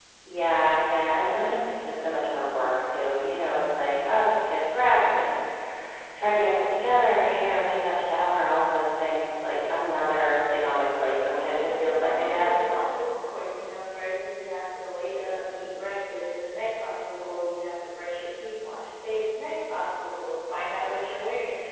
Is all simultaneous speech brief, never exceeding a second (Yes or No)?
No